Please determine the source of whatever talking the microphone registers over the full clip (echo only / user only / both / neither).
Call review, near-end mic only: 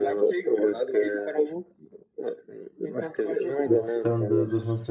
both